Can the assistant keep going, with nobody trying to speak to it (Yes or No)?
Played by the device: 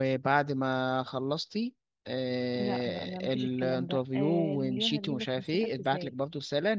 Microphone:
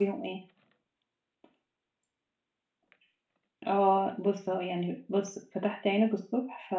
No